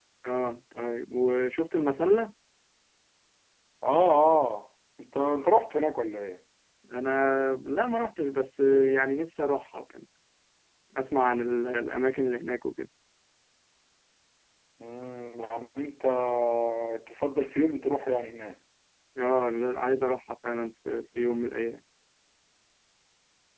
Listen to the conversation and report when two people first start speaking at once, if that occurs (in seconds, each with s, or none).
none